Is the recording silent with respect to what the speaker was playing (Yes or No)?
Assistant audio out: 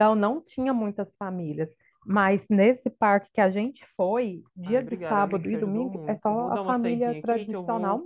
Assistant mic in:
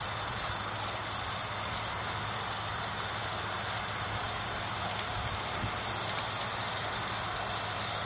Yes